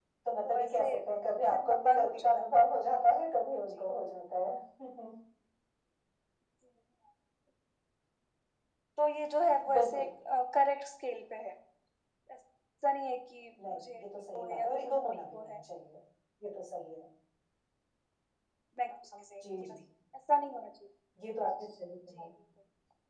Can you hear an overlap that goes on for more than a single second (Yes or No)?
Yes